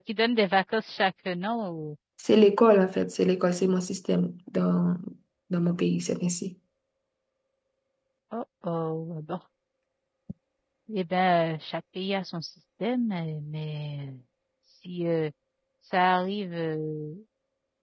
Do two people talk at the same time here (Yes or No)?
No